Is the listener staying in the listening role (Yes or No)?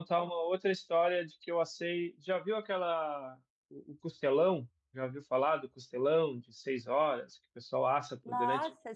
No